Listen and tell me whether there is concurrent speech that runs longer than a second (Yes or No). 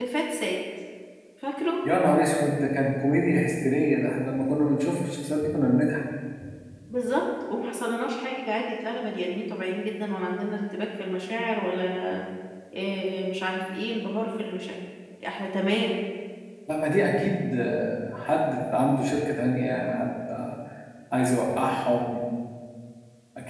No